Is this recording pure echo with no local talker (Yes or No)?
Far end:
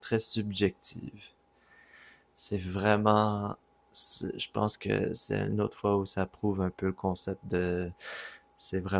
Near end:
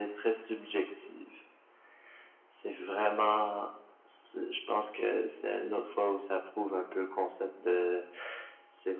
Yes